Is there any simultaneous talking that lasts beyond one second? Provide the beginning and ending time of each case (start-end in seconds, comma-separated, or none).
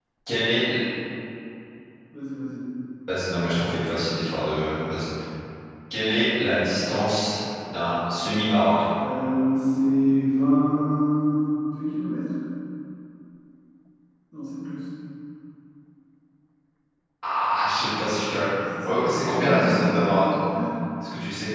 18.8-20.4